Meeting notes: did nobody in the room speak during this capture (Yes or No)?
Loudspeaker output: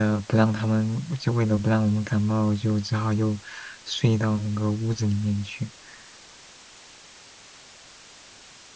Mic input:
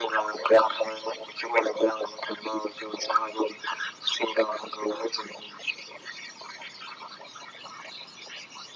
Yes